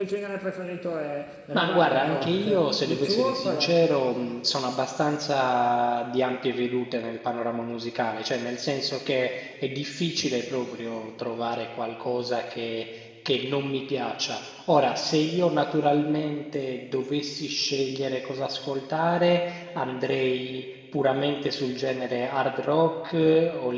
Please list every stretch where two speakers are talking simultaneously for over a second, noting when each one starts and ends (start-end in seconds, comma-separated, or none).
1.5-3.7